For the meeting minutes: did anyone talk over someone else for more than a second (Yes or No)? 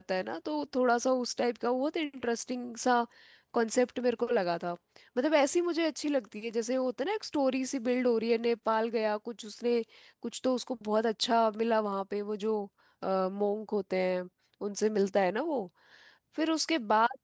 No